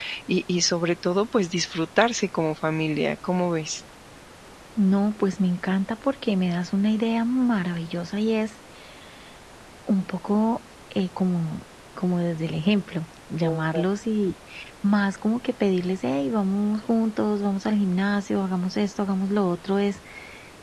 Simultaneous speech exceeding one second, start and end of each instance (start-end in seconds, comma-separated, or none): none